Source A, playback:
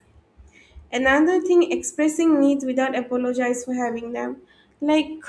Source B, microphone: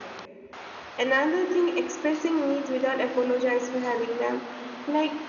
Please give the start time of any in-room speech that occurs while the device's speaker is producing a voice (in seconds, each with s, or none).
none